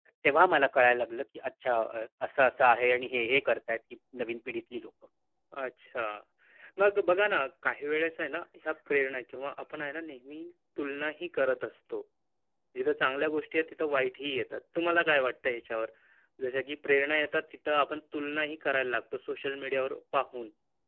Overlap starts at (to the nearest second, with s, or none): none